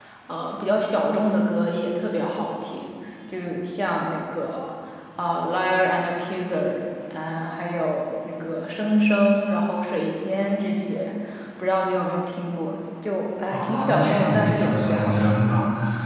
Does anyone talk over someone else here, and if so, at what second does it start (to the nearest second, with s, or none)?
13 s